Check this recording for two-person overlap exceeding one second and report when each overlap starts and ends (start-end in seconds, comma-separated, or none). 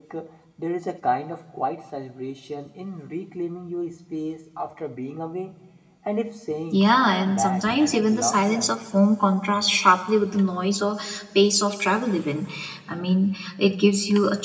6.7-8.7